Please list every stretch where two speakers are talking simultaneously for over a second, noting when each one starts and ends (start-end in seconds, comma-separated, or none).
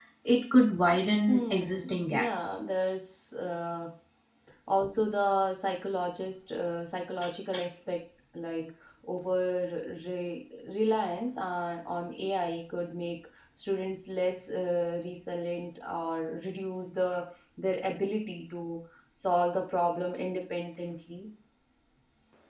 1.3-2.5